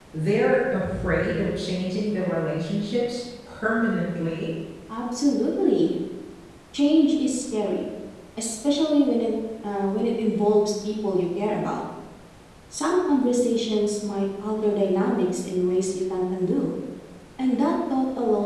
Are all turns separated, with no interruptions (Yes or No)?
Yes